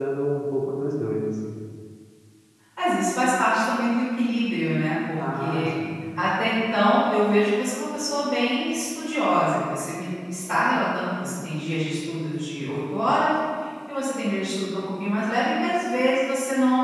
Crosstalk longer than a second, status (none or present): none